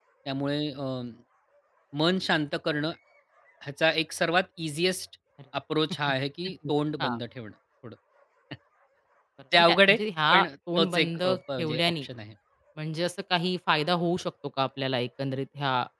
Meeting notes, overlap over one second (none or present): present